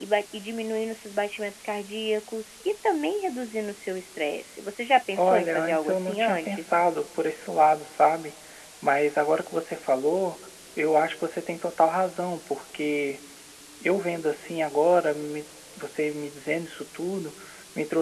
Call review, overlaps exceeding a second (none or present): present